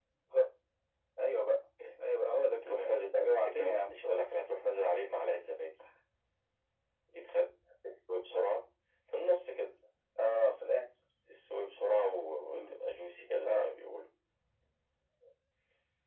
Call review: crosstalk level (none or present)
present